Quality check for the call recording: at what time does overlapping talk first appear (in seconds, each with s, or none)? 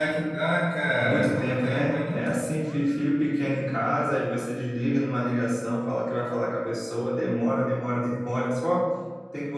1.0 s